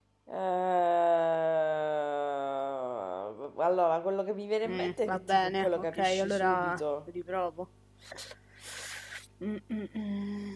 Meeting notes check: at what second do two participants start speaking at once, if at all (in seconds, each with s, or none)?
4.7 s